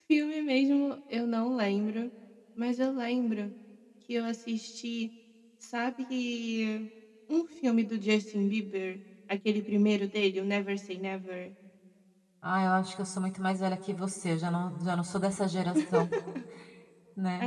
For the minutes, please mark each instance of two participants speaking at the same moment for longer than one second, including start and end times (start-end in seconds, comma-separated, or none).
none